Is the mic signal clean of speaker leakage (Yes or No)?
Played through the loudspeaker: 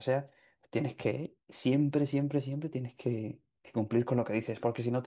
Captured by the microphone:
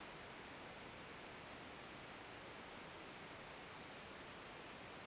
Yes